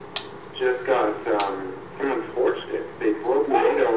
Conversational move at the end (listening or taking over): listening